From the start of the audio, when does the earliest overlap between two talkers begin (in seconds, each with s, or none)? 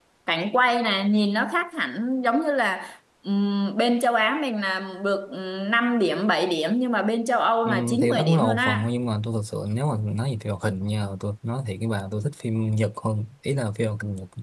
7.6 s